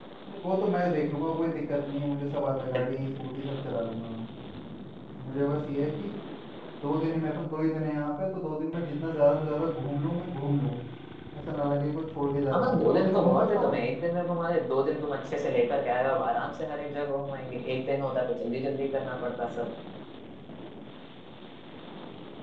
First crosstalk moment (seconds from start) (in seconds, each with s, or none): 12.5 s